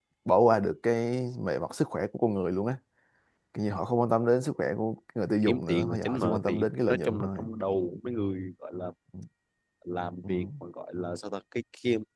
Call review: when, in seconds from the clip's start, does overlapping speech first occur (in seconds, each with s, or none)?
5.5 s